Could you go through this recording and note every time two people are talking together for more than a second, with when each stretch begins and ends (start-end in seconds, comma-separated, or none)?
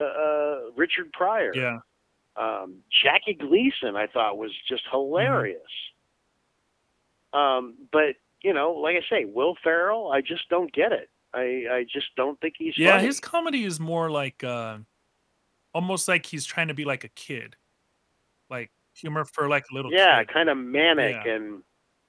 none